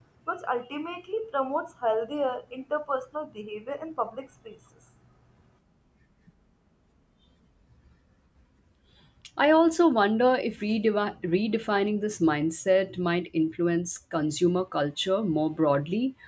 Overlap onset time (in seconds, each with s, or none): none